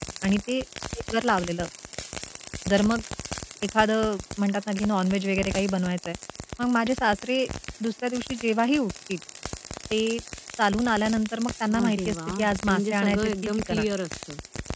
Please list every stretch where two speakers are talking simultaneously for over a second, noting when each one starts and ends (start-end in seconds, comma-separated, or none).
11.8-13.9